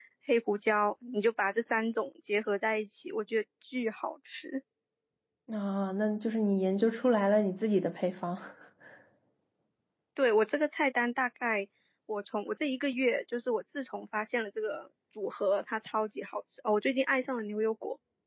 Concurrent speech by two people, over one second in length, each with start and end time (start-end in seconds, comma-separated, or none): none